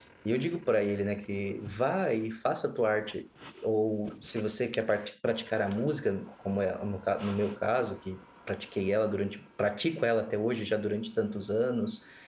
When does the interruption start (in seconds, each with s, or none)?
none